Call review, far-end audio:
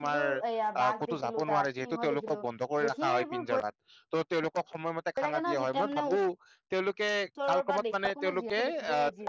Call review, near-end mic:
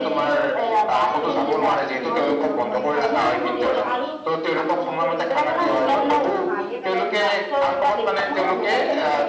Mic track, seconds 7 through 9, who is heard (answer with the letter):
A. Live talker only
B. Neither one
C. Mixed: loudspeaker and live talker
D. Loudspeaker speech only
C